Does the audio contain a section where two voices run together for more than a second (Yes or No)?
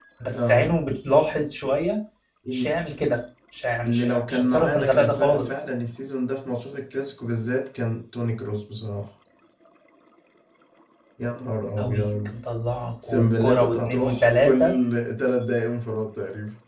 Yes